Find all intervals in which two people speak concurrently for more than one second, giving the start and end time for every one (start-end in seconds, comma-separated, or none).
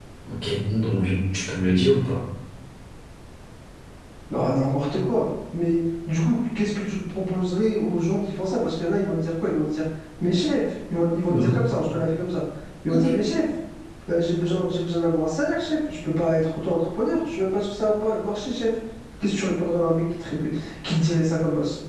none